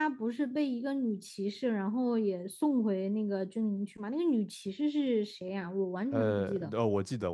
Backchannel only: No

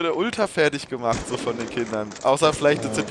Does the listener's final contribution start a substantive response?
No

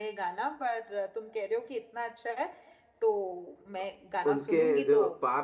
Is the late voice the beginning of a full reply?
Yes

